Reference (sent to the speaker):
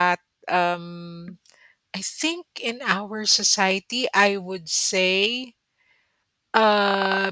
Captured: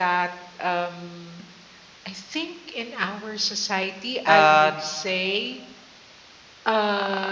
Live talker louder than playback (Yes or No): Yes